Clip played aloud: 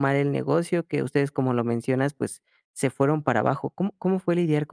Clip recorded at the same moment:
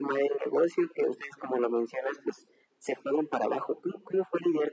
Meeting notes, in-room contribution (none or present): none